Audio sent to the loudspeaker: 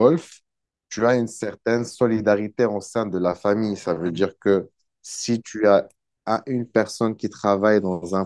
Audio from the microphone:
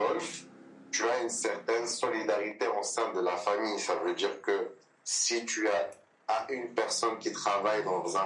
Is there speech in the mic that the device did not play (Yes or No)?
No